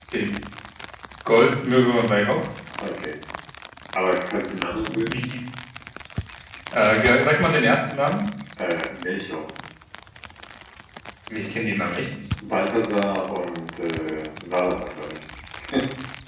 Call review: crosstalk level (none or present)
none